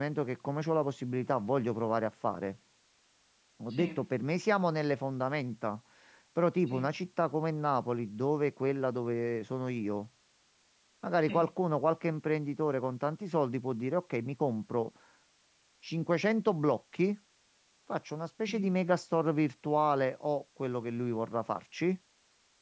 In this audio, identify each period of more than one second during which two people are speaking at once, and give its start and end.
none

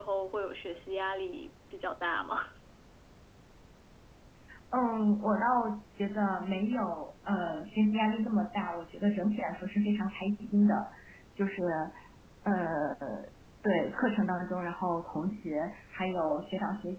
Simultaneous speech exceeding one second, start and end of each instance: none

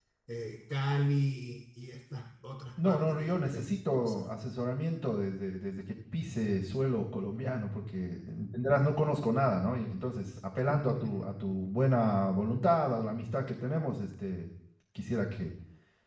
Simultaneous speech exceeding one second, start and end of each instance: 2.8-4.2

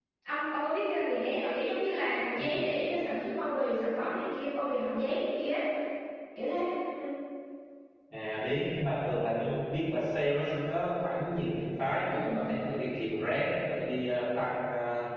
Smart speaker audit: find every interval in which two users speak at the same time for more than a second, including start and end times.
none

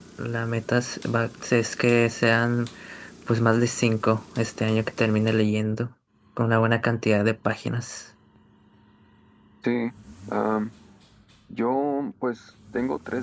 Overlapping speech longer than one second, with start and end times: none

